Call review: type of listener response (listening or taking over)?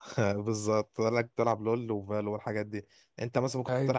listening